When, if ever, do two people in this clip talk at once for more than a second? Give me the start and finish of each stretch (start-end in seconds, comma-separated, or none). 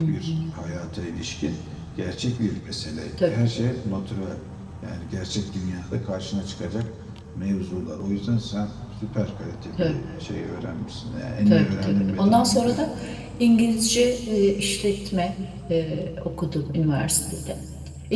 11.5-12.8